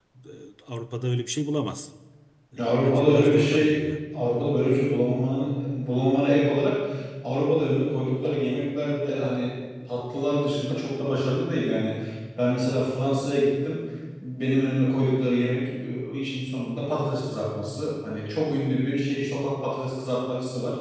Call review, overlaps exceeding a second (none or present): present